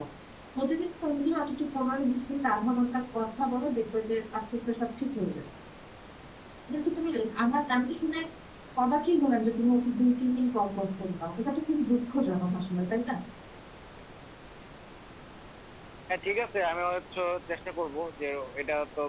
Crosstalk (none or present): none